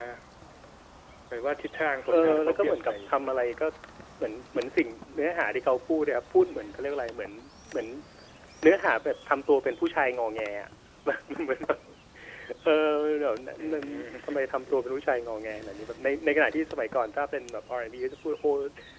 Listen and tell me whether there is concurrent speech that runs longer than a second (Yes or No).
Yes